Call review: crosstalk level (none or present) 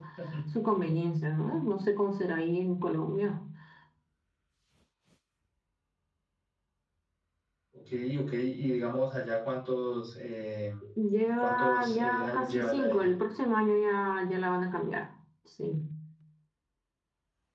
present